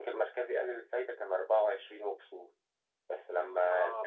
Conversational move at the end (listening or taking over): listening